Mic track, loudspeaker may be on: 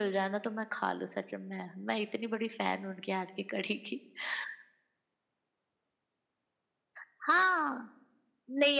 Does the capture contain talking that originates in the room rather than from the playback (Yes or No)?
No